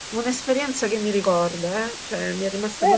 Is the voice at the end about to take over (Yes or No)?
Yes